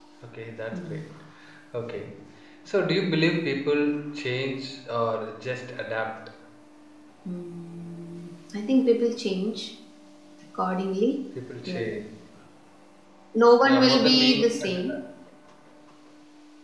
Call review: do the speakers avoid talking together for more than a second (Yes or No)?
No